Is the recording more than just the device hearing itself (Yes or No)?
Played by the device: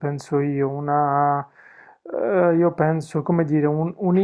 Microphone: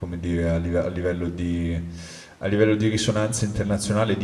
Yes